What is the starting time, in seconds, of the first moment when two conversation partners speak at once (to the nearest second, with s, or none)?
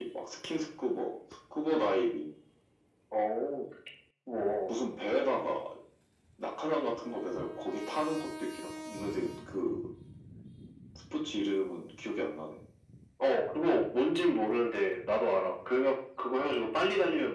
none